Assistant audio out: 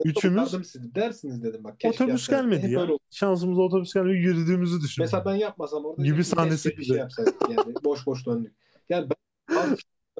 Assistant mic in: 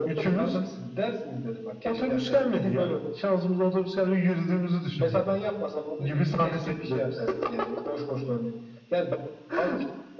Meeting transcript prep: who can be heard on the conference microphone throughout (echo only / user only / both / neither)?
echo only